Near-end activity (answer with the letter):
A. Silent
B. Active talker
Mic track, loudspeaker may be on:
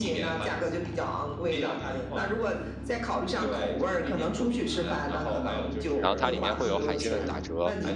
B